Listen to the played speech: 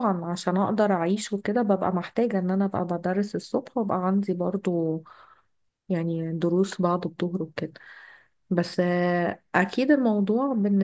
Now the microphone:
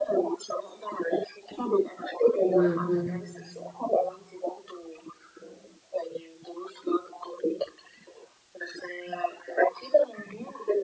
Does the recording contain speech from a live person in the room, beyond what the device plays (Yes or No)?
Yes